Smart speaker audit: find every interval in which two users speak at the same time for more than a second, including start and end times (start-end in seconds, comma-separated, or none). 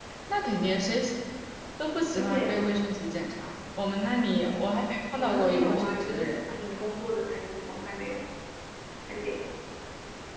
5.2-6.6